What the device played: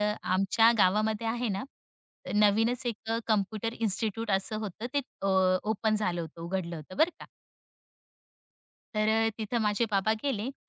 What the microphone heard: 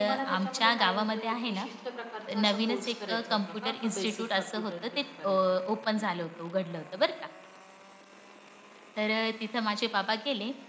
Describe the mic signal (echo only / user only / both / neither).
both